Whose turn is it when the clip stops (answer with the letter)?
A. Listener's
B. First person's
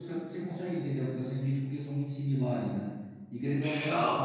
B